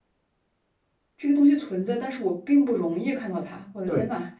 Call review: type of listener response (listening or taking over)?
taking over